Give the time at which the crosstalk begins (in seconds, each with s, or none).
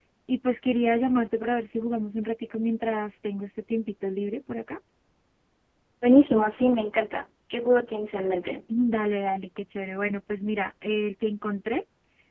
none